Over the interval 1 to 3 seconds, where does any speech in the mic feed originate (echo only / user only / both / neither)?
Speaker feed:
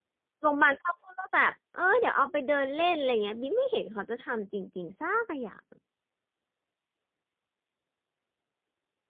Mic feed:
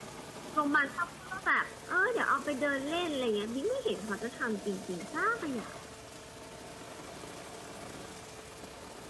echo only